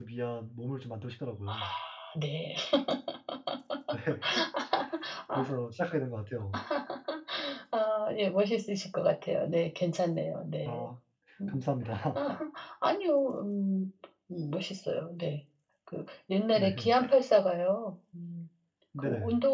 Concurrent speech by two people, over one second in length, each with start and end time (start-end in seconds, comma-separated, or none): none